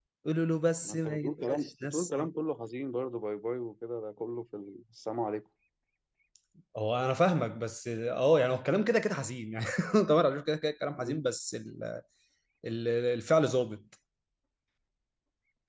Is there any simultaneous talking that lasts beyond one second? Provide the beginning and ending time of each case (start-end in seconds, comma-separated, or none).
0.8-2.3